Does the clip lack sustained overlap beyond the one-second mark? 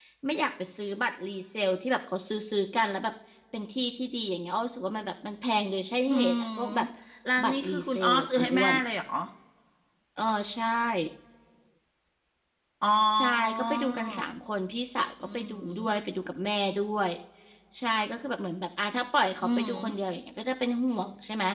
No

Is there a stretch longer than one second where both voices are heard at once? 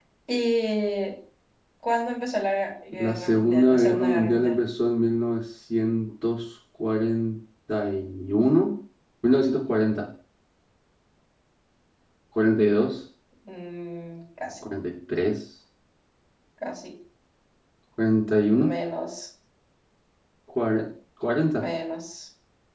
Yes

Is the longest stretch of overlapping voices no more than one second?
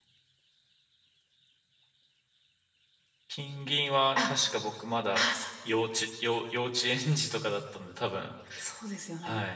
Yes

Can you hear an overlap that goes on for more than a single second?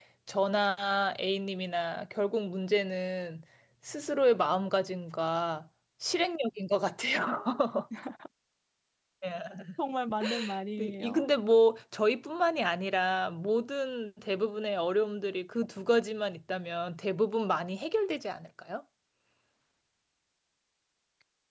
No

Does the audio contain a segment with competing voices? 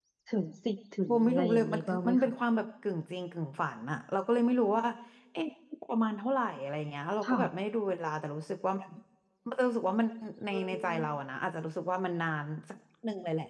Yes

